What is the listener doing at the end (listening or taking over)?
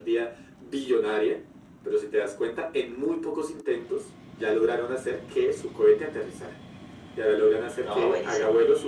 listening